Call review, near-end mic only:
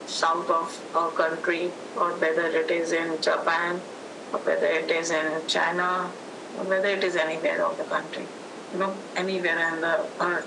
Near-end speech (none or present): none